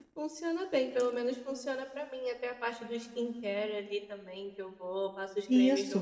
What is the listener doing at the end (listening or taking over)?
taking over